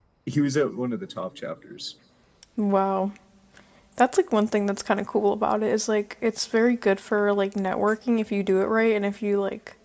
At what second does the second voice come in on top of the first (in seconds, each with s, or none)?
none